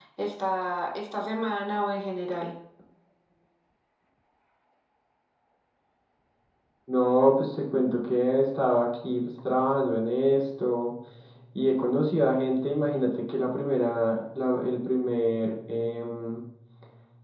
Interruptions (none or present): none